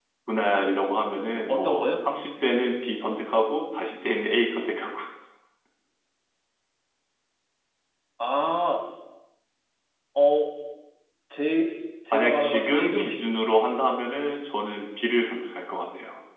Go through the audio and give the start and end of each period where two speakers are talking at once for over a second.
12.1-13.5

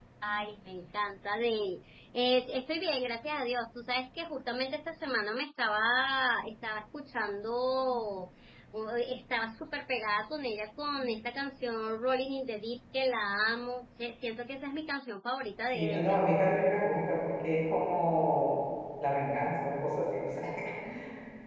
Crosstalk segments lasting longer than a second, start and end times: none

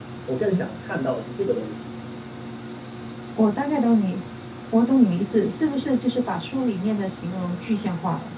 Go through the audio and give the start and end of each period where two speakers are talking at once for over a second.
none

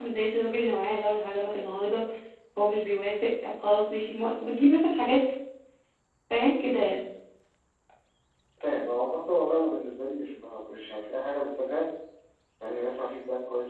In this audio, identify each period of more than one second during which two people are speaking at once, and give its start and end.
none

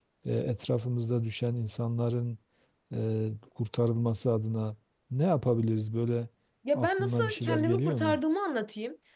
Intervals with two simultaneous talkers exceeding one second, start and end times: 6.7-8.2

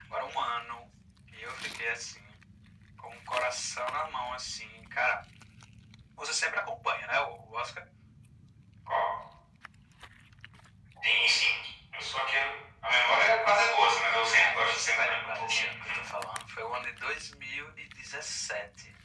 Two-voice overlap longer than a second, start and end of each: 14.2-15.7

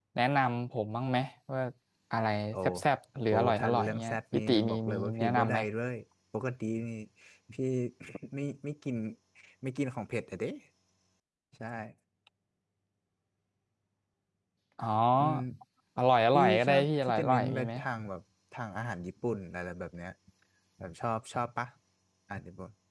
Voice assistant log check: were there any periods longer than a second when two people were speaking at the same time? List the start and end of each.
3.3-5.6, 16.3-17.7

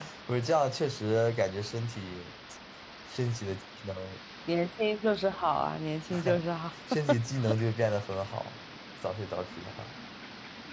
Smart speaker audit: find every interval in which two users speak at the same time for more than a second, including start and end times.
none

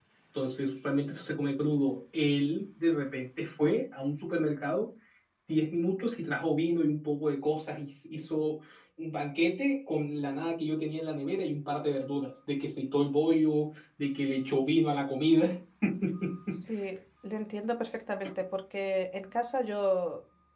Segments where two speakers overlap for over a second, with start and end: none

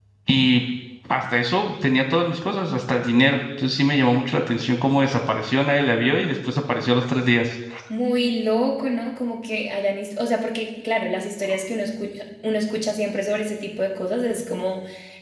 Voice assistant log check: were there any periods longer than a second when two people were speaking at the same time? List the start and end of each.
none

